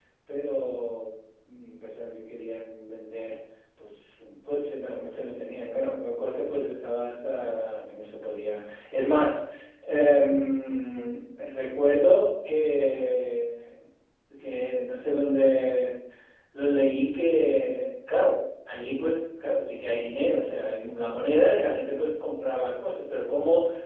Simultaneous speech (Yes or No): No